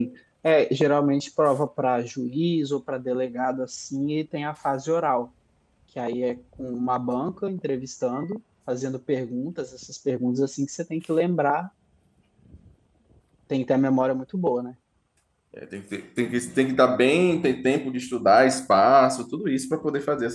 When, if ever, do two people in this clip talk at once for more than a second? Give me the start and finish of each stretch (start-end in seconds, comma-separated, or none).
none